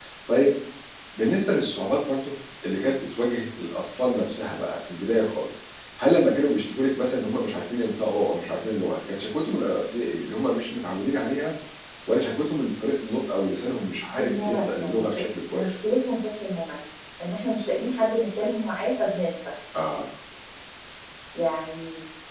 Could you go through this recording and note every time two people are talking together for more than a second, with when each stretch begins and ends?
14.2-15.7

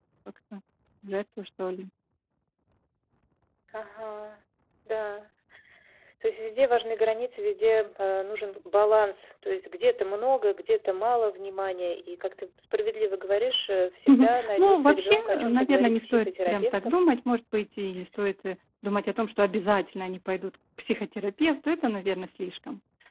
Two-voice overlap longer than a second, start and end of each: 14.1-17.0

